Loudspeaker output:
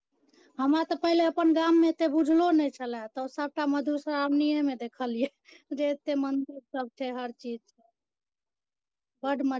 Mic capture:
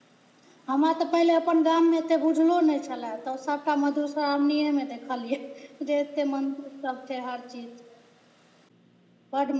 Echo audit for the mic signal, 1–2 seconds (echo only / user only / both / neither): echo only